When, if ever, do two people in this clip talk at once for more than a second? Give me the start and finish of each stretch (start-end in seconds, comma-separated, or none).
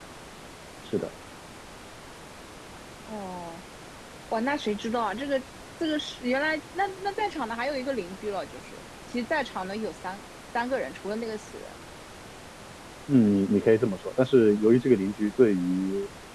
none